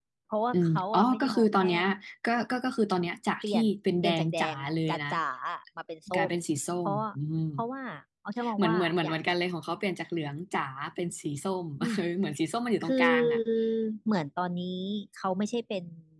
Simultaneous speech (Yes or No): Yes